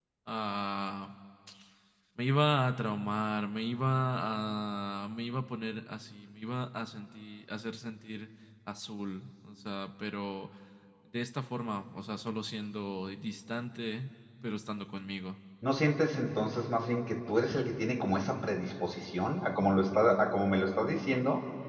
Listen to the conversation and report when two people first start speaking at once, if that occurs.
none

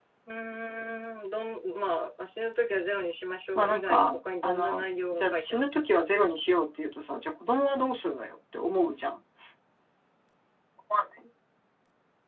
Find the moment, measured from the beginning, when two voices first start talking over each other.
3.5 s

